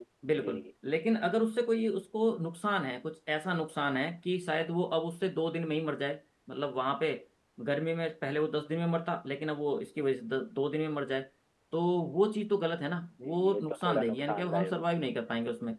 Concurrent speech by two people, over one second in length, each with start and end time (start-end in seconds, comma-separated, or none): 13.2-14.9